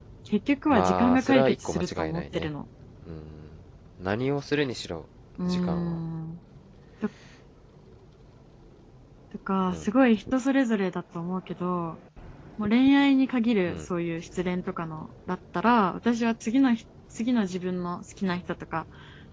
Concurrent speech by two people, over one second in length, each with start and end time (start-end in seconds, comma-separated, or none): 0.7-2.5